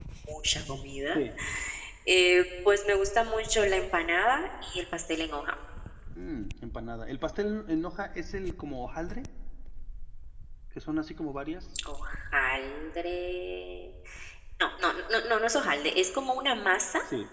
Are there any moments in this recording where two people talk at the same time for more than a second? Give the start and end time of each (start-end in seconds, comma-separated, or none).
none